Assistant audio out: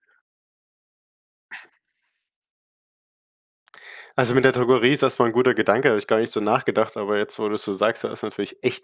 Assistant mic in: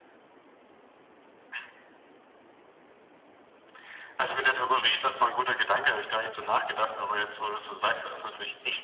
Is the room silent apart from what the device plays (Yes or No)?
Yes